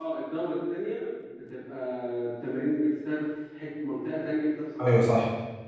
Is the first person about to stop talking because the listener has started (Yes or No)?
Yes